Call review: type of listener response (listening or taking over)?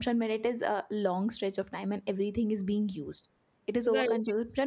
listening